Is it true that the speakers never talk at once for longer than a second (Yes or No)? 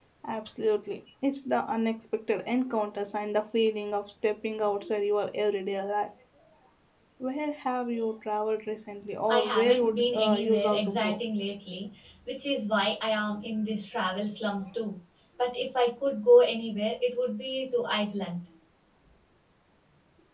No